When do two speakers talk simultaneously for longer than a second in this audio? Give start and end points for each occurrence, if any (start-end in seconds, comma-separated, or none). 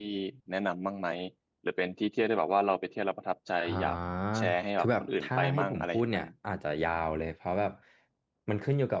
4.8-6.2